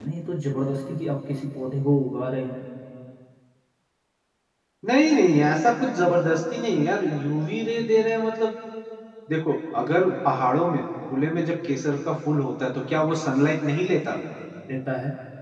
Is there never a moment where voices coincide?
Yes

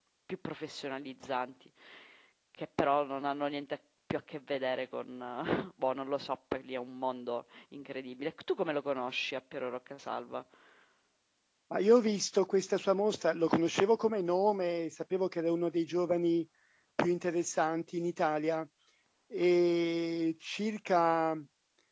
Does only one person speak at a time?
Yes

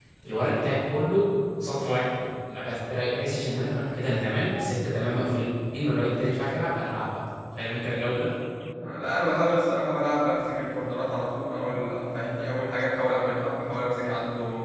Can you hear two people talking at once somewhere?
No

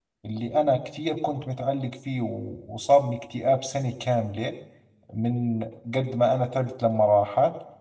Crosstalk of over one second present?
No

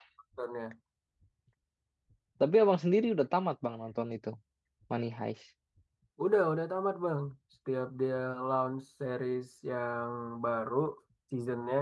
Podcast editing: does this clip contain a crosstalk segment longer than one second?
No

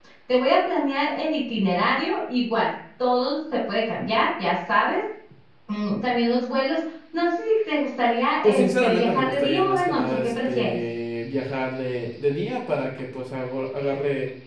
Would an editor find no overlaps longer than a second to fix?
No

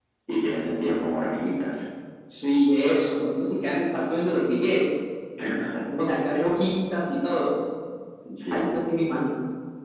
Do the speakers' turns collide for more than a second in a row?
No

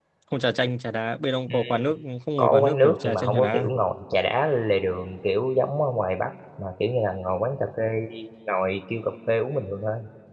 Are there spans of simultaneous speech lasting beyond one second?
Yes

